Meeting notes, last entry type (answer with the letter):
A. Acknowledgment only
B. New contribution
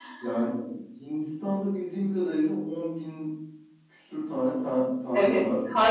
B